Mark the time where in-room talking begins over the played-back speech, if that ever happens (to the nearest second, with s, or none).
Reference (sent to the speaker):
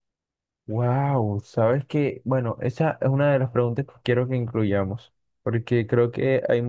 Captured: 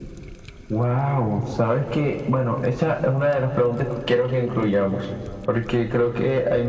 none